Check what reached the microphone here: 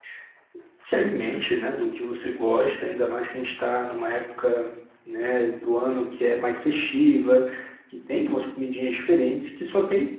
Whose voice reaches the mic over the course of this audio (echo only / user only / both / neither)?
user only